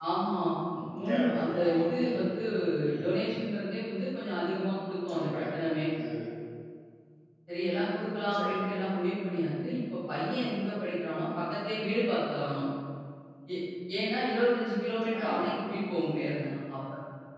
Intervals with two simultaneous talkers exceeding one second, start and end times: 1.1-2.3

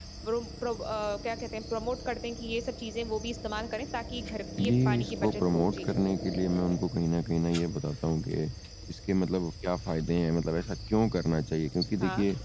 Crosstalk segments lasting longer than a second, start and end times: 4.6-5.9

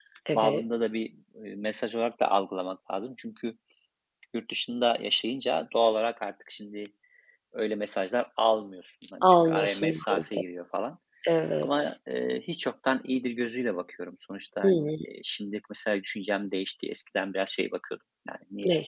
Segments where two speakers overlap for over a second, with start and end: 9.2-10.4

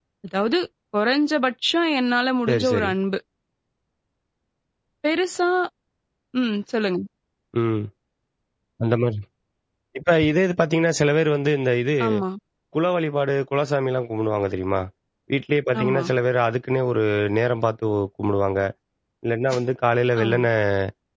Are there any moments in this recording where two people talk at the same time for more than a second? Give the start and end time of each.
none

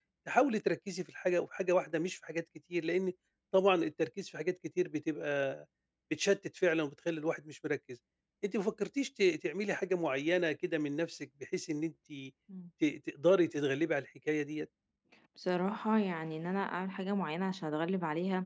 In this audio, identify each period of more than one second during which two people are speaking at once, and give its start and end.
none

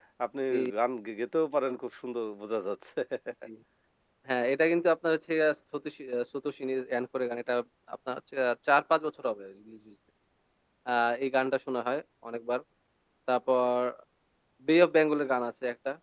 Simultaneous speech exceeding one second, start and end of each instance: none

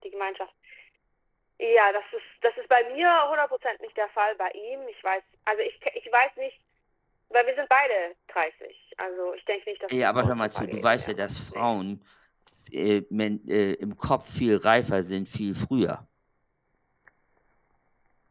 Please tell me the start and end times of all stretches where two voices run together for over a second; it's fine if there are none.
10.2-11.7

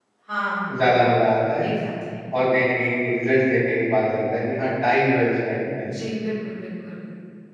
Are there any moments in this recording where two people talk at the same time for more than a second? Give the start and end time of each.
none

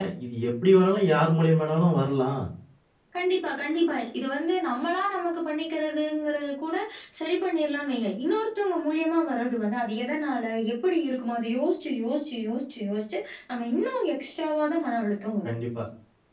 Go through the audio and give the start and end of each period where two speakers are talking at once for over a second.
none

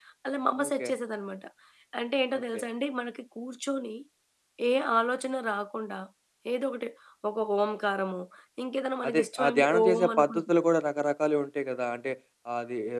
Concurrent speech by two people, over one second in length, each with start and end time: 9.1-10.5

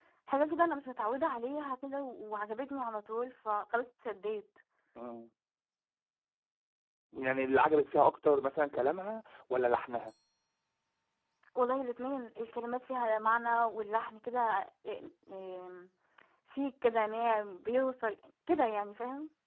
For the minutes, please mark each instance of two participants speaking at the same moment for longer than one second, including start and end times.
none

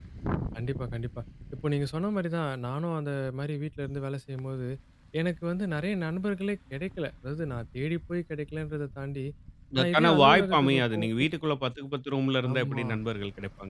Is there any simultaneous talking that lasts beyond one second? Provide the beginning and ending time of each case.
9.8-11.0

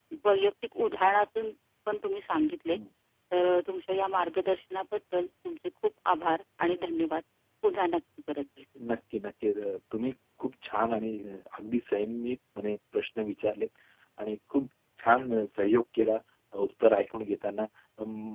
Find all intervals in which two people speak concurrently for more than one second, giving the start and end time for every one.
none

